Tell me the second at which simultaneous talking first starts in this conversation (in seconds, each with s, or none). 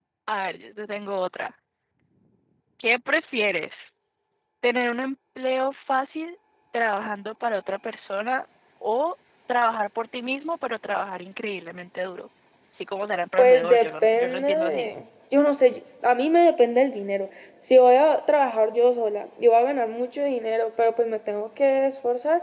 13.4 s